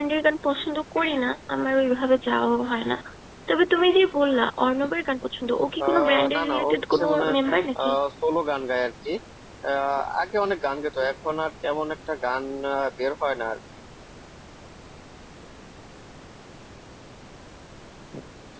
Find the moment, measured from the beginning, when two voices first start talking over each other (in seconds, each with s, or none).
5.8 s